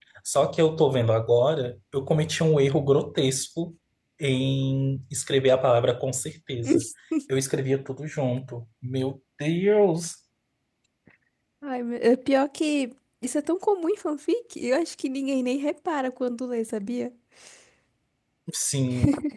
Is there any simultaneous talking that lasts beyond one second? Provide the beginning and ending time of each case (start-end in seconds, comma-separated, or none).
none